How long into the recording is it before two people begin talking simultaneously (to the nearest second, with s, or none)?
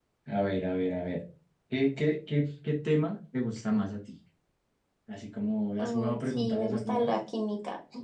6 s